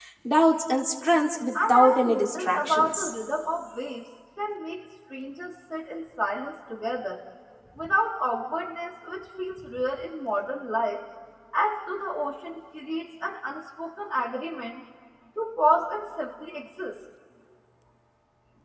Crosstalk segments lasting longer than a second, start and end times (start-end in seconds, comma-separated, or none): 1.7-3.1